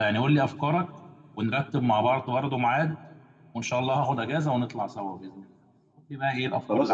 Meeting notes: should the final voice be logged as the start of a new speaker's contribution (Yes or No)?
Yes